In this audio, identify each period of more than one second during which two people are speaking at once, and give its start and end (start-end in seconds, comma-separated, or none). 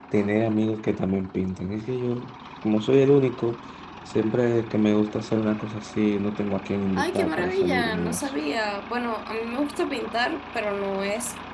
7.0-8.3